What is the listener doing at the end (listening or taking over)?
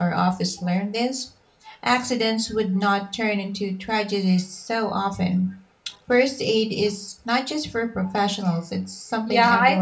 taking over